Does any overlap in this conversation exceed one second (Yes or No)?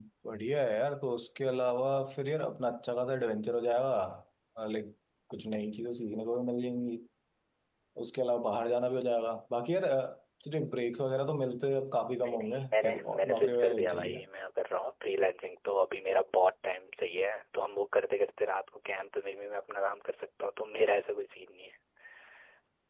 Yes